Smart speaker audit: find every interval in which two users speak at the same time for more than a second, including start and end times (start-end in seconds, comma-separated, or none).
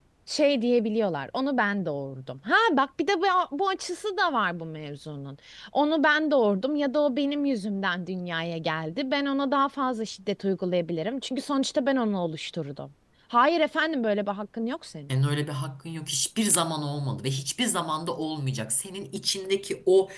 none